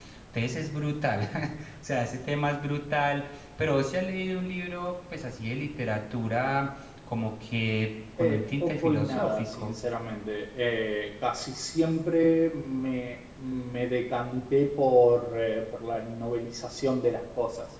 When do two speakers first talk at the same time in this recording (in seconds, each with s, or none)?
8.2 s